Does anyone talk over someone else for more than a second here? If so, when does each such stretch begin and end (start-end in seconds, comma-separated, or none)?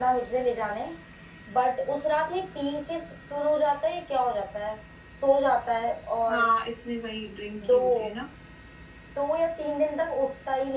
none